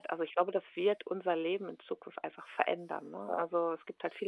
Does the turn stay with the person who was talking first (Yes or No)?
Yes